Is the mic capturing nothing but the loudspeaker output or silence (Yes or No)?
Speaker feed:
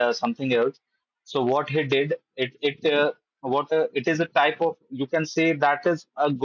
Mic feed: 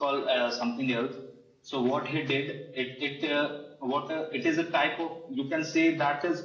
Yes